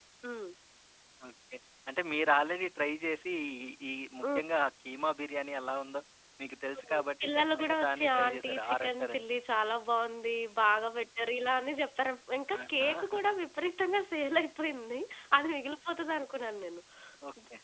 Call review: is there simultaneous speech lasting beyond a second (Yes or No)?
Yes